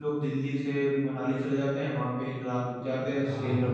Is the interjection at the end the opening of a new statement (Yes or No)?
No